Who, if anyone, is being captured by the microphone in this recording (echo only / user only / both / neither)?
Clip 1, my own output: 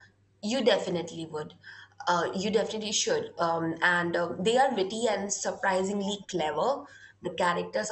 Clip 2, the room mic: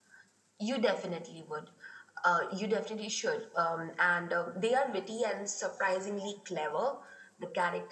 echo only